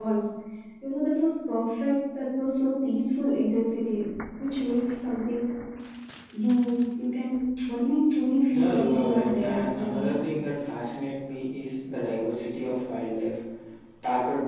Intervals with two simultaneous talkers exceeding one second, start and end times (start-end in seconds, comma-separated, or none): 8.5-10.0